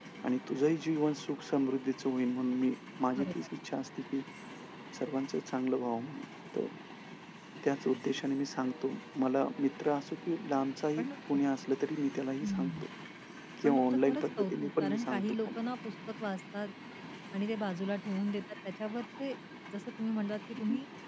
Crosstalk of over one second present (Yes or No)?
Yes